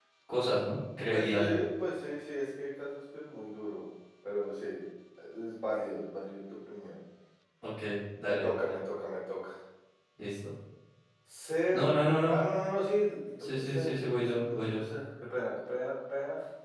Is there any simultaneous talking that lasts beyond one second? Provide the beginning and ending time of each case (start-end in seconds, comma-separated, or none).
13.5-14.8